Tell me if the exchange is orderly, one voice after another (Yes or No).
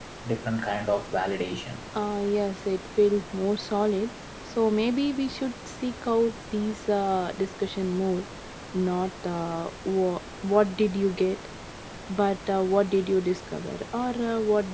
Yes